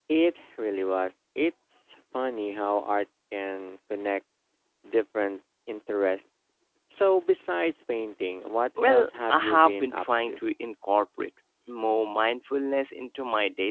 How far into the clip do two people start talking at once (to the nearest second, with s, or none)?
9 s